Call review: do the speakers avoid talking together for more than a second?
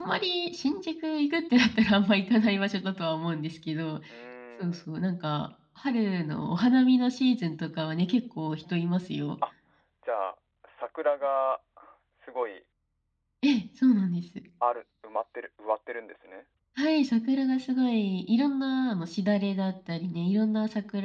Yes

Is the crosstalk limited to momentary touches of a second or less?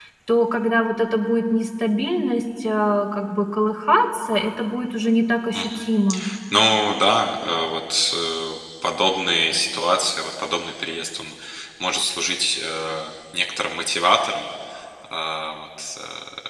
Yes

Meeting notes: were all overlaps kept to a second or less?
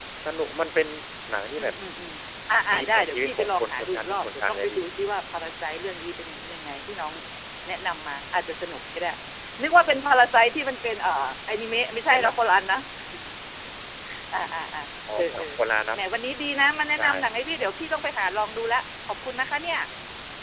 No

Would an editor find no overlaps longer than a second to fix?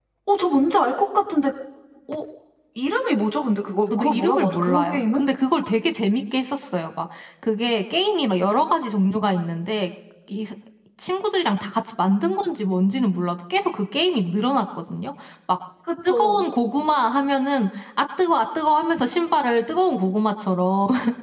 No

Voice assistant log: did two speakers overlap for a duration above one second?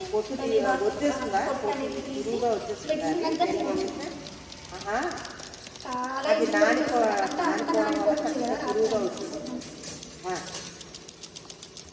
Yes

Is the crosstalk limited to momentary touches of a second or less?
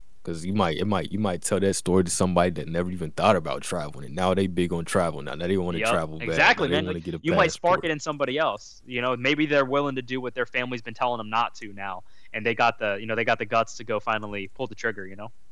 No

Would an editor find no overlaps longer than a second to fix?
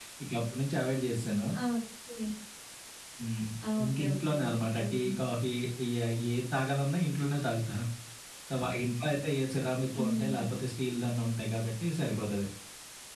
No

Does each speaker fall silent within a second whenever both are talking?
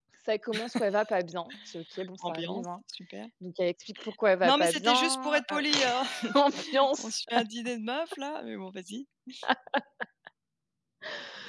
No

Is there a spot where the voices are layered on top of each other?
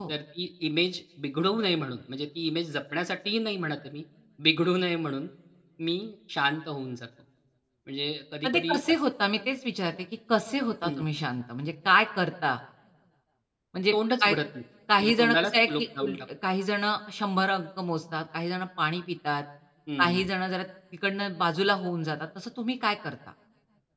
Yes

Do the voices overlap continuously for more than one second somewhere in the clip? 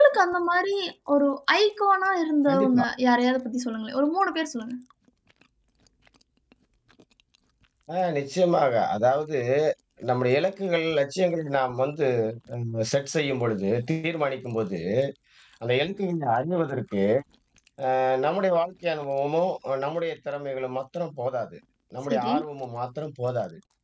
No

